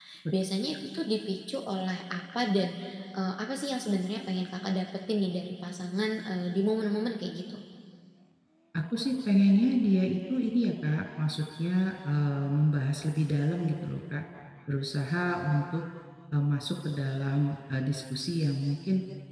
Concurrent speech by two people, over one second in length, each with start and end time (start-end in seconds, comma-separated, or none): none